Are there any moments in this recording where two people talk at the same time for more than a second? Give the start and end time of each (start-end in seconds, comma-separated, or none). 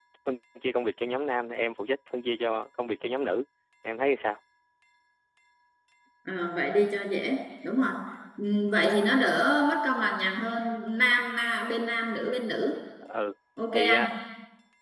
none